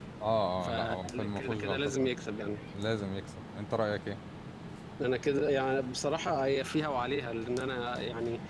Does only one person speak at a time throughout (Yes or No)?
No